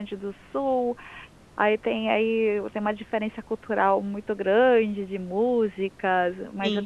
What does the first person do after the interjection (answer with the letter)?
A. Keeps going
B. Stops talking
A